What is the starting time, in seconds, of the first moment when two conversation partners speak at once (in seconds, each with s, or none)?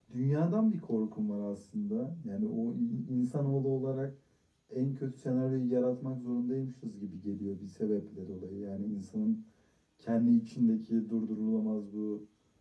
none